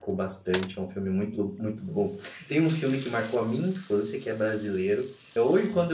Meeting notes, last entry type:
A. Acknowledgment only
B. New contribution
A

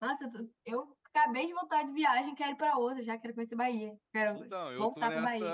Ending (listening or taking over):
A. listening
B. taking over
B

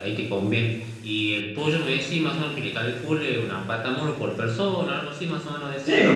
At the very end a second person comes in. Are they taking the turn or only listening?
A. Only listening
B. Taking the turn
B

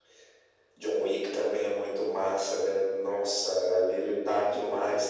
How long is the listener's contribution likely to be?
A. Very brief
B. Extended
A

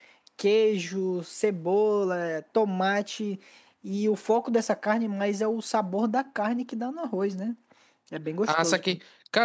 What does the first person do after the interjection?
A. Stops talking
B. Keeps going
A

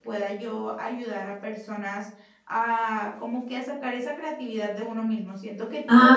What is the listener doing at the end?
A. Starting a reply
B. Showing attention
B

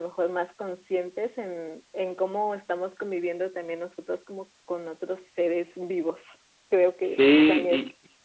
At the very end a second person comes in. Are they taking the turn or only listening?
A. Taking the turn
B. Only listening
A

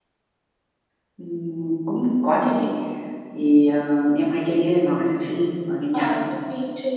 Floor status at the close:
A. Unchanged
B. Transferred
B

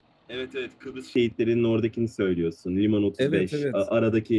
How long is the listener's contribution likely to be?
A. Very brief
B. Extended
A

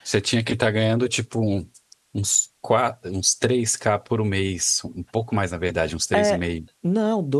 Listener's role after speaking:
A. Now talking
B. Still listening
A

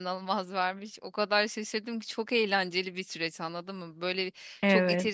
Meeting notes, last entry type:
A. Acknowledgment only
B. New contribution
A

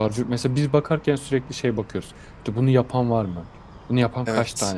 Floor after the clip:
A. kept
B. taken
A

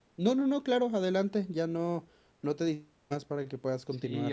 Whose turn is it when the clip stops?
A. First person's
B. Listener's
B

